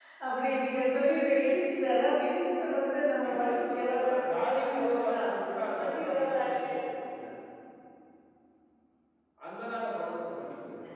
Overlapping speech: Yes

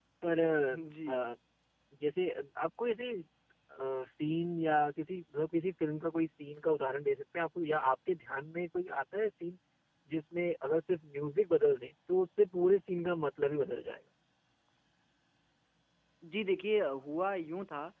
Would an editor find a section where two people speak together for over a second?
No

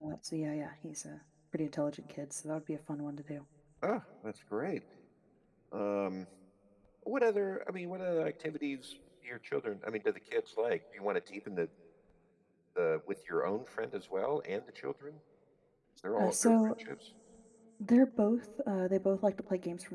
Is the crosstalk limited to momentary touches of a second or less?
Yes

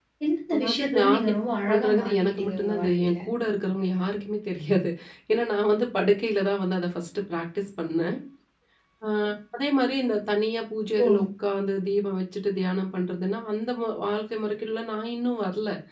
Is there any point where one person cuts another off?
Yes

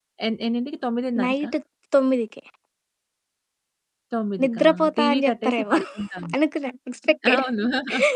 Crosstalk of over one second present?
Yes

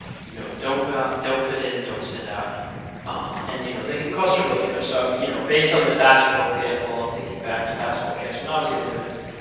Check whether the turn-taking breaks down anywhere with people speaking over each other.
No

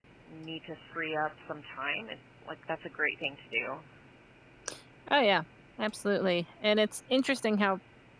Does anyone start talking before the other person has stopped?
No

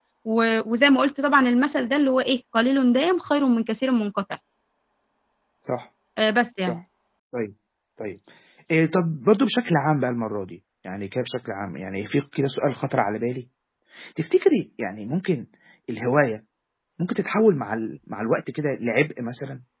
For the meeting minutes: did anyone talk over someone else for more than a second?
No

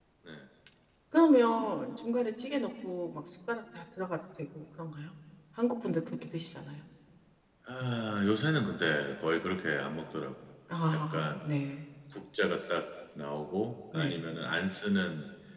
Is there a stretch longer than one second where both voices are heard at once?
No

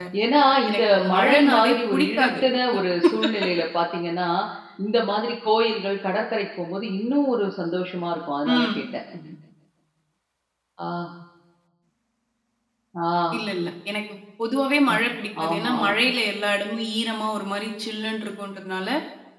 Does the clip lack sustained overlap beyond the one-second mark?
No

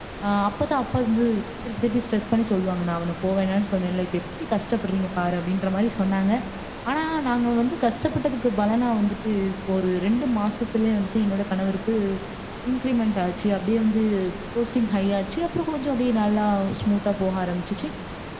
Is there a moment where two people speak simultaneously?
No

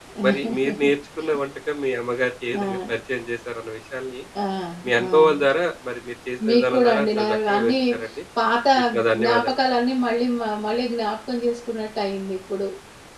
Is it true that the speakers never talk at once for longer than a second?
No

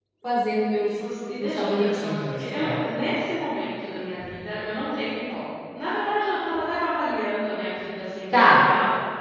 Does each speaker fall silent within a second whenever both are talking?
No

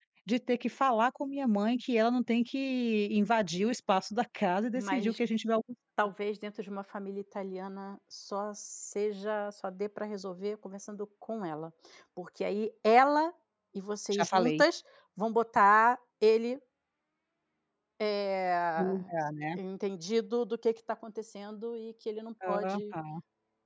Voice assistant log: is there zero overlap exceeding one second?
Yes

